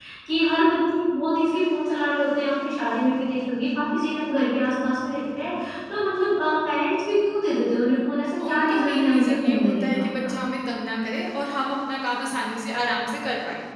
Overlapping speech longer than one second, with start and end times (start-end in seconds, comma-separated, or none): 8.5-10.3